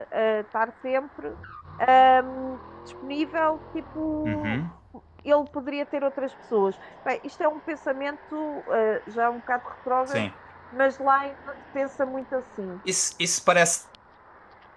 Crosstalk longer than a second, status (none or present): none